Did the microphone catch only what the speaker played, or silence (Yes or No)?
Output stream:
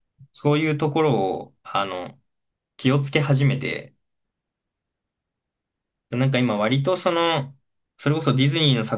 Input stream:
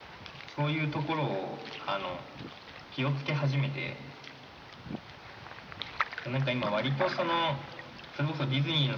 Yes